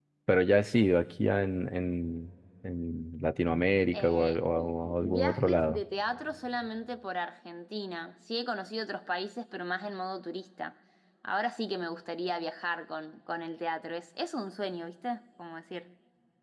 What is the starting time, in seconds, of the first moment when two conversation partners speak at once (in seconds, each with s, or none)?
3.9 s